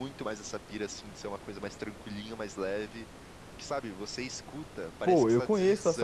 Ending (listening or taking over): taking over